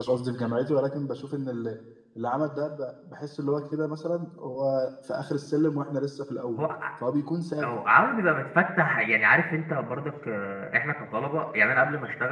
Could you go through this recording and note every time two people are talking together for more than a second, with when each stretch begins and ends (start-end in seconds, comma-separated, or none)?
none